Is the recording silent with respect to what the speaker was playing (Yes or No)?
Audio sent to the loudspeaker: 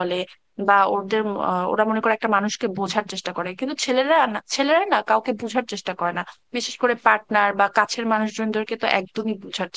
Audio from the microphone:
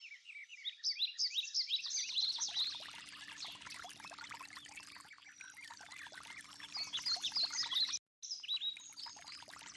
Yes